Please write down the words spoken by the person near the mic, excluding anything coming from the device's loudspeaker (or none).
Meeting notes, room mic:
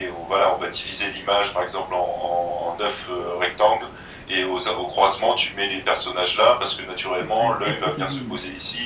Ouais, elle peut t'aiguiller en tout cas.